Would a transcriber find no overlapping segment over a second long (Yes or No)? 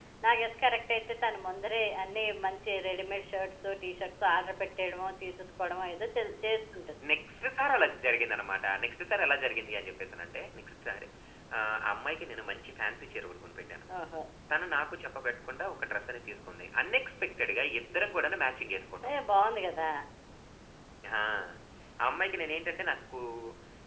Yes